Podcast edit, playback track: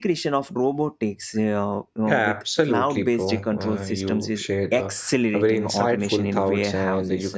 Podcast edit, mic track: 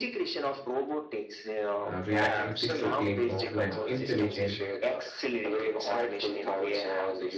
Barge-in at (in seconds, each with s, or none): 1.9 s